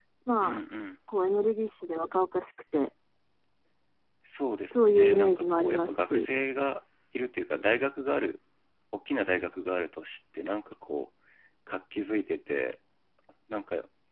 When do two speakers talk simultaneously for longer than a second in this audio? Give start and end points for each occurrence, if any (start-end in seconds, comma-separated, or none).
4.7-6.3